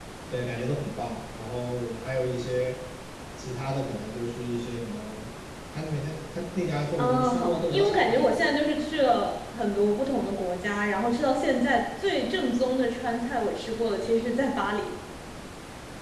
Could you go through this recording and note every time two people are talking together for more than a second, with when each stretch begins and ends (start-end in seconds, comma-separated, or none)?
7.0-8.5